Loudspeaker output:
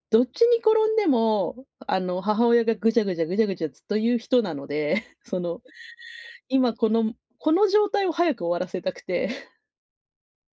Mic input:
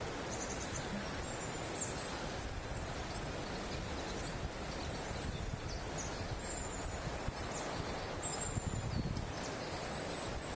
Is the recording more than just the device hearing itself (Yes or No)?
No